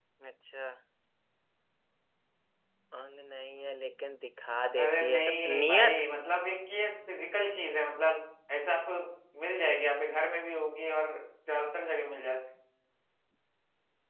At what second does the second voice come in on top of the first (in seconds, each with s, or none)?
4.8 s